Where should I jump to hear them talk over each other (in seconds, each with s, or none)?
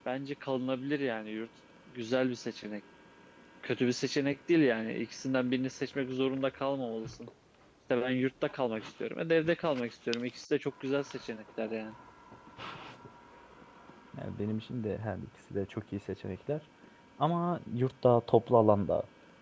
none